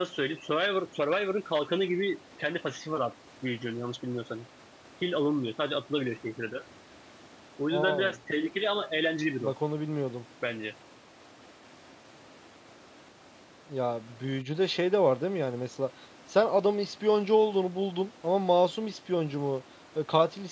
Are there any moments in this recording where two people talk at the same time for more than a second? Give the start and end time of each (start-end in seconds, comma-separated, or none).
none